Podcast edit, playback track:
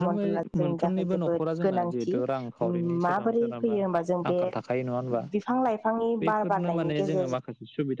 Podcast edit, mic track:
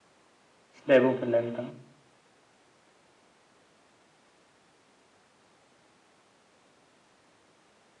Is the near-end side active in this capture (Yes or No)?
Yes